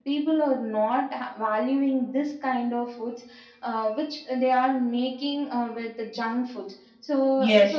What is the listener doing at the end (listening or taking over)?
taking over